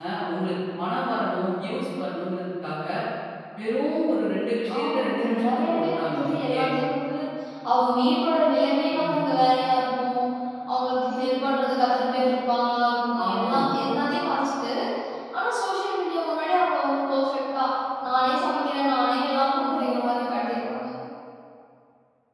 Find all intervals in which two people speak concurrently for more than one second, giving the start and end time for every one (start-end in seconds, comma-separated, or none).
4.8-6.6